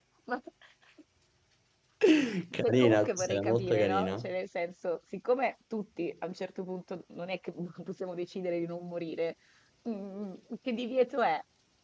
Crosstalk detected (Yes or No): Yes